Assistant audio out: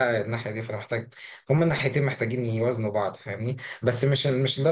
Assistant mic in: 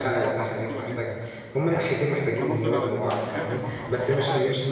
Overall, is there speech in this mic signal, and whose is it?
both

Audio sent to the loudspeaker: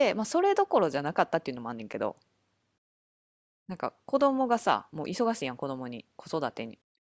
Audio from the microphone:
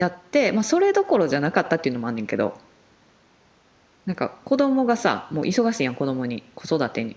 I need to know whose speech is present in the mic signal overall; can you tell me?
echo only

